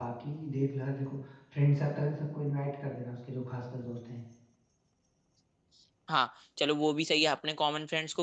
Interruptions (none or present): none